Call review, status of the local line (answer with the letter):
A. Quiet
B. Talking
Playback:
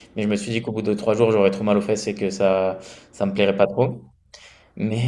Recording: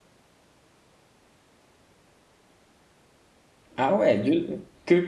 B